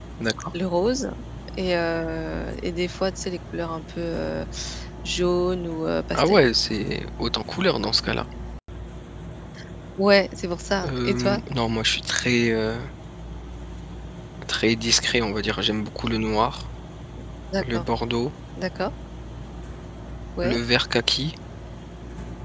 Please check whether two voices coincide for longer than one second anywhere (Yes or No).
No